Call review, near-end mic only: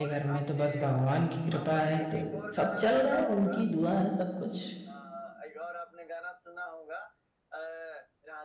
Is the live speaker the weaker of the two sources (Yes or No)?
No